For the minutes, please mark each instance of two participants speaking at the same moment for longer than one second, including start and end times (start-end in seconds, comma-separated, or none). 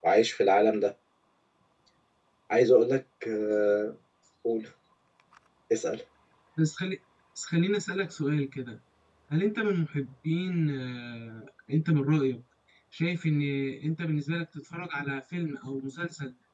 none